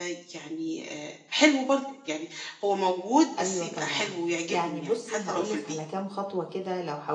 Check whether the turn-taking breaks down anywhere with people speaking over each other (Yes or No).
Yes